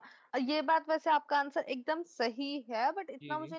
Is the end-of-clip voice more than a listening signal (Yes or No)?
No